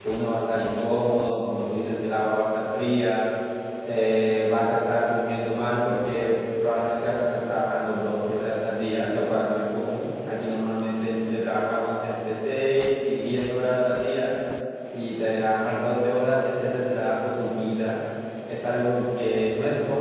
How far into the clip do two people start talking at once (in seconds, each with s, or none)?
none